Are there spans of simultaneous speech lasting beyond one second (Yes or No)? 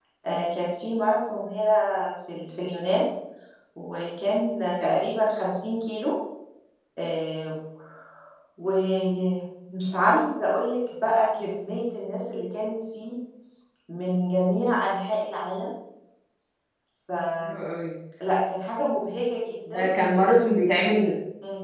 No